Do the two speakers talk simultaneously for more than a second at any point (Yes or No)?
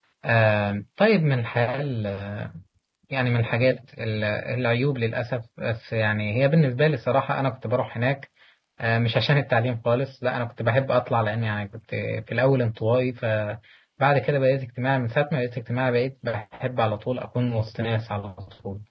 No